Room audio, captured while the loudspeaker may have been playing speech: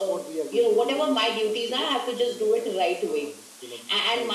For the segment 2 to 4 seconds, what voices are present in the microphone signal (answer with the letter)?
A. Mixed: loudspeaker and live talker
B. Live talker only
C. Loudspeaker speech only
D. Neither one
C